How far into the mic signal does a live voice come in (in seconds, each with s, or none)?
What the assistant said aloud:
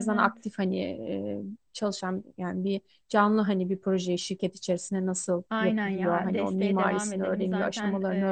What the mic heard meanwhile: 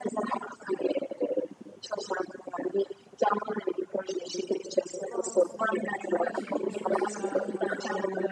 5.0 s